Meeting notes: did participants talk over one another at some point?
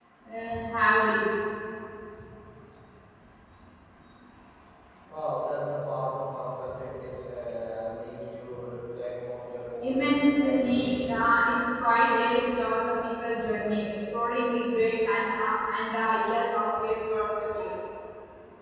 Yes, from 9.8 s

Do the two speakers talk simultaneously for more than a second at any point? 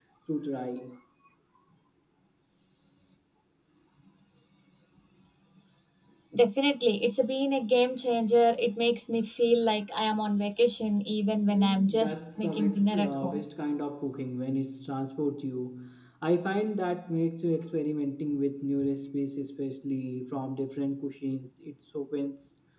Yes, from 11.5 s

